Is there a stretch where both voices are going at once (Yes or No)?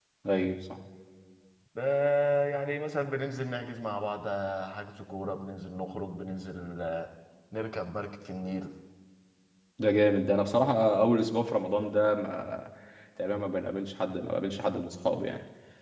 No